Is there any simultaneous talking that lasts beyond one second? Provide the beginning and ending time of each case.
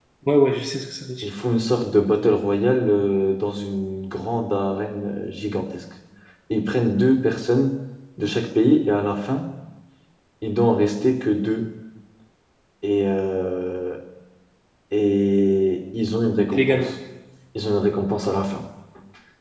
none

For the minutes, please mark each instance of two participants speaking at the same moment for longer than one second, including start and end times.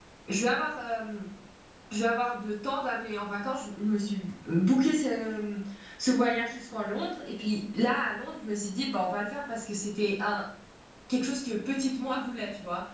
none

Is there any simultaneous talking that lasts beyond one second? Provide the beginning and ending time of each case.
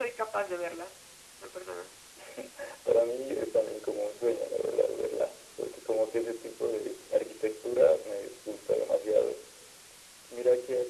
none

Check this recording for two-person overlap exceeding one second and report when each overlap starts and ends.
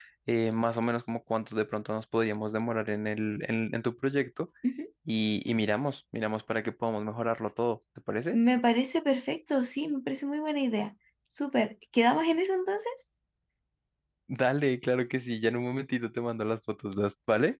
none

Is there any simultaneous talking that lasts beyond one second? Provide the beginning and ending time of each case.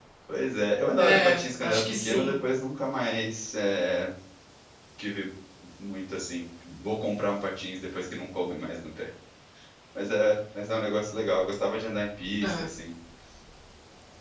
1.0-2.4

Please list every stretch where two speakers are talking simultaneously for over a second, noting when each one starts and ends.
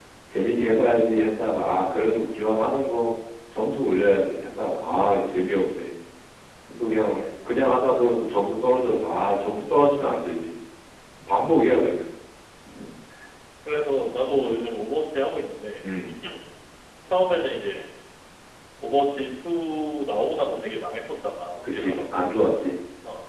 none

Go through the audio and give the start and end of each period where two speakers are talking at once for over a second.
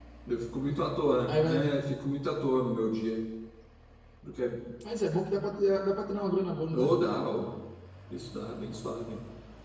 none

